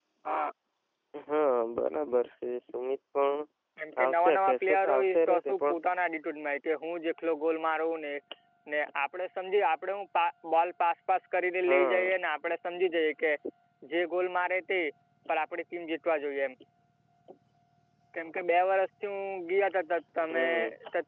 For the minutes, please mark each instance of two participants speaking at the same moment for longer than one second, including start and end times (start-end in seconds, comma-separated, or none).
4.0-5.8